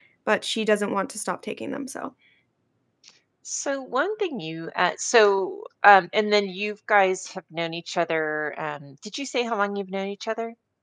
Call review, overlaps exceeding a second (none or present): none